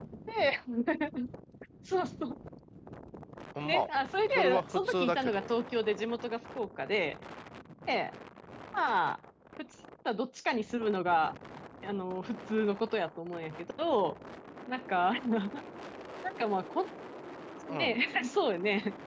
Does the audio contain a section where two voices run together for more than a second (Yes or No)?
Yes